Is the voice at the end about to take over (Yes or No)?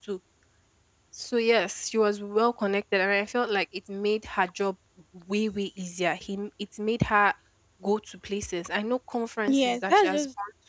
Yes